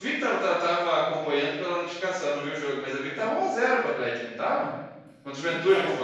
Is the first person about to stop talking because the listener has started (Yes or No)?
Yes